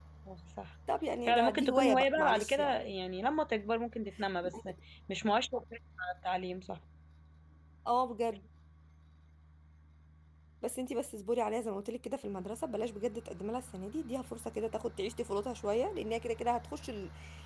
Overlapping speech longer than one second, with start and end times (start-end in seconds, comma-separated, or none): 1.3-2.8